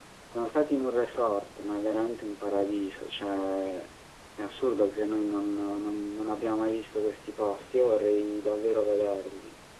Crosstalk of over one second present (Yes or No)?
No